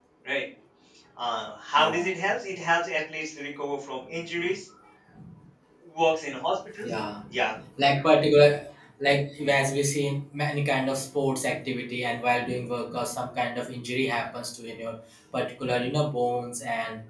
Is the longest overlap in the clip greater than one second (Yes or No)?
No